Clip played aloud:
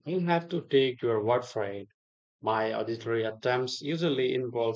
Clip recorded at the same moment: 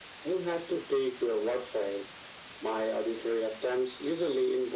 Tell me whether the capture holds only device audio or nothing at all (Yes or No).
Yes